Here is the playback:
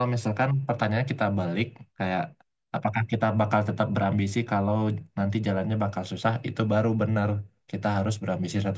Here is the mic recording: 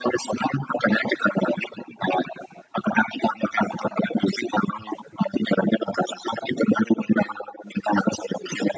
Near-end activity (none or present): none